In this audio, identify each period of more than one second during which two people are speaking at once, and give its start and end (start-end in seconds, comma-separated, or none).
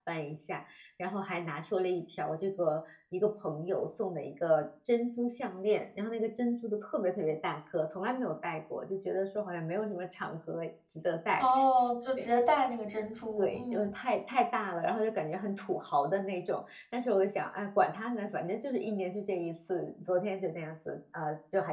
none